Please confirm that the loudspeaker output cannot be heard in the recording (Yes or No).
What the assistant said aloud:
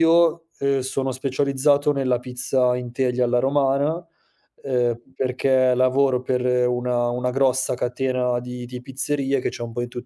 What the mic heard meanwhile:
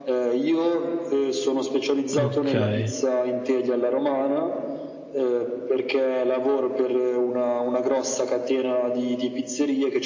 No